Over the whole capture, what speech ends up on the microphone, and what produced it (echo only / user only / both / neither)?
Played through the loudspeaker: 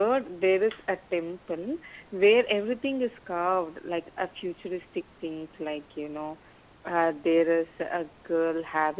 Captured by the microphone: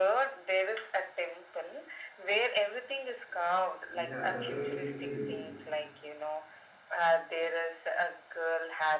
both